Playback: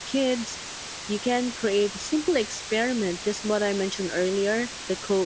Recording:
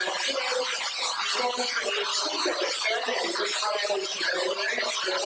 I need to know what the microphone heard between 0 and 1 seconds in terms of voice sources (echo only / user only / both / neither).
echo only